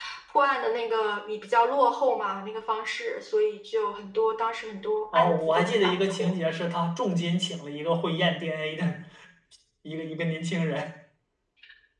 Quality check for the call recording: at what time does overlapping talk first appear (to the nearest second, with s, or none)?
5 s